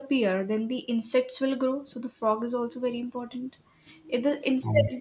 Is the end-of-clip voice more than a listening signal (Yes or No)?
No